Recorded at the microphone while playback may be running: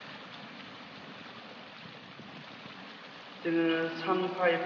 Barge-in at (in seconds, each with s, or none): 3.4 s